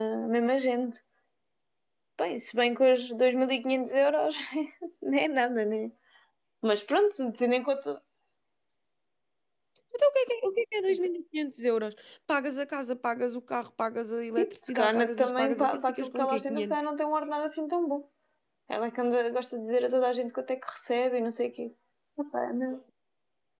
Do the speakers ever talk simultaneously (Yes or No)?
Yes